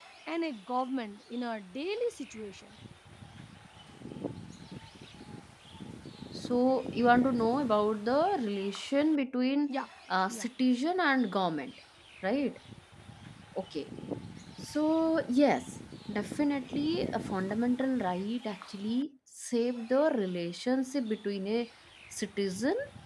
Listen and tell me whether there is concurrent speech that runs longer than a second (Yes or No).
No